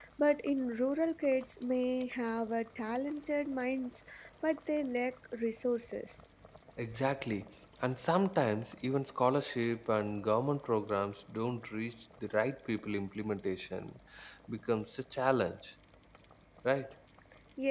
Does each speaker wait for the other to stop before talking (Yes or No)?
Yes